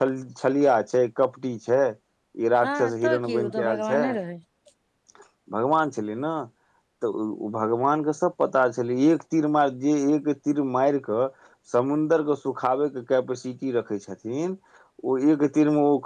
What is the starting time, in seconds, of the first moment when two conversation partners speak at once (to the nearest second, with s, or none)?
3 s